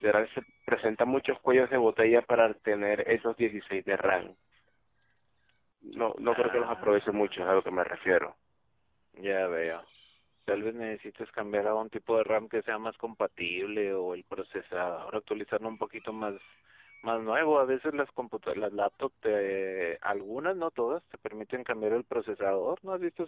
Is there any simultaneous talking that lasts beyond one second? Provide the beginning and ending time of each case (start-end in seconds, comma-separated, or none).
6.3-7.5